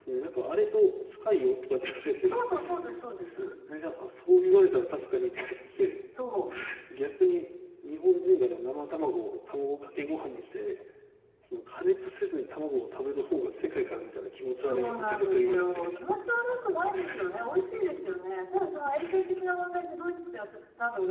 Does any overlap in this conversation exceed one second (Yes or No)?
Yes